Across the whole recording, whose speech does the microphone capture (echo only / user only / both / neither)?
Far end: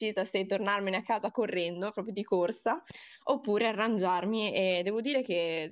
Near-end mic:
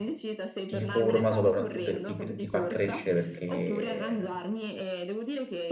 both